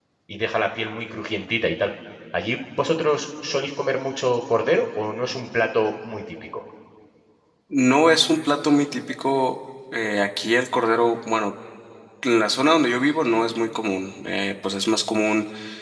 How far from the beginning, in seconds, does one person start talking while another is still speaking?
none

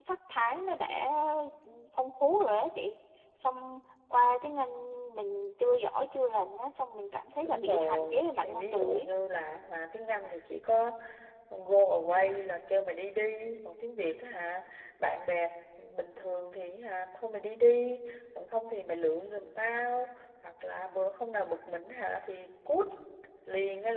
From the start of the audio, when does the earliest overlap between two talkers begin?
7 s

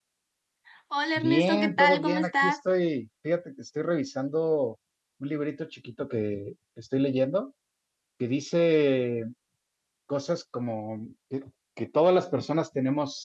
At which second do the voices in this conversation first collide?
1 s

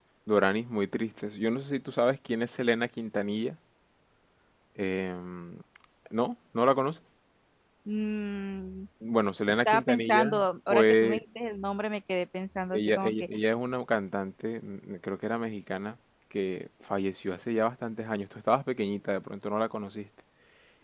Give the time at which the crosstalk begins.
9 s

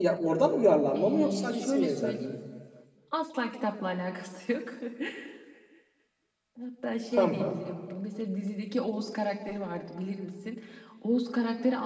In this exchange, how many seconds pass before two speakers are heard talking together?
1 s

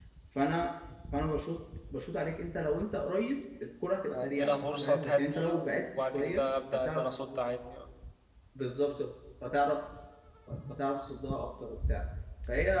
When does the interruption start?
4 s

